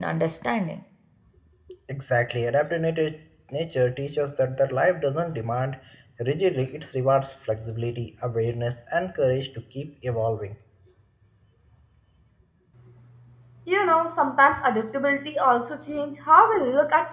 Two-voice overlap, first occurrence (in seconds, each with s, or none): none